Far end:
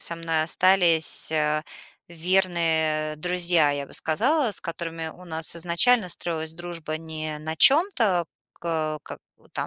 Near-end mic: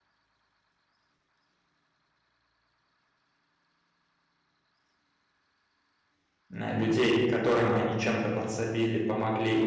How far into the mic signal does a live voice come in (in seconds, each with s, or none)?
6.5 s